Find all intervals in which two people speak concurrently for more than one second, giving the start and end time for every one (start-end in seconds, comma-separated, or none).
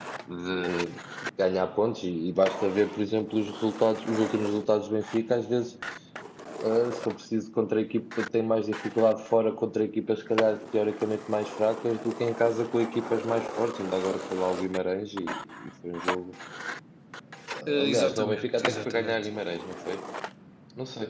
17.7-19.2